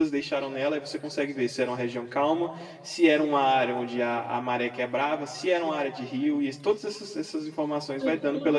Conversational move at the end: taking over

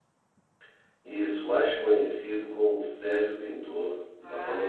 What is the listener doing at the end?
taking over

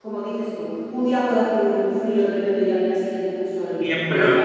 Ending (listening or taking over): taking over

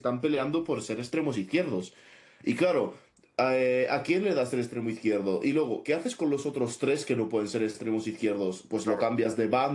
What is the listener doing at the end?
listening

